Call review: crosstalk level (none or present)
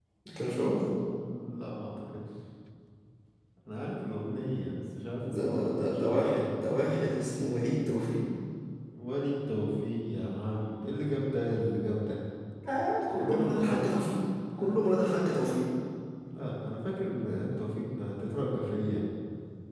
present